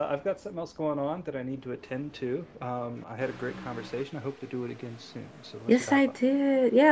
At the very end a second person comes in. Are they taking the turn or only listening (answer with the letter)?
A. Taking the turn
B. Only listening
A